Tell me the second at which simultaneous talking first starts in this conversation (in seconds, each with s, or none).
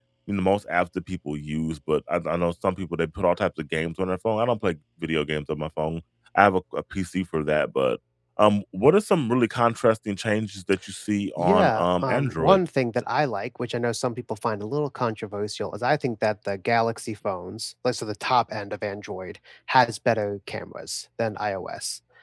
11.4 s